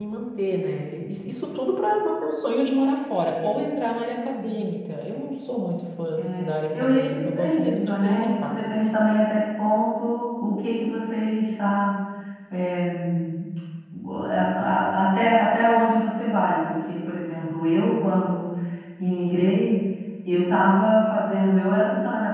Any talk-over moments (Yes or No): Yes